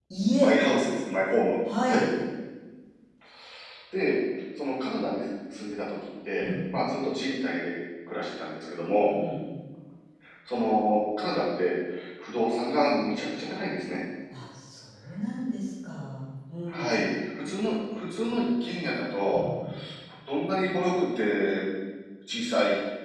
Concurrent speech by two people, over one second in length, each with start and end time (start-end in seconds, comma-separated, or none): none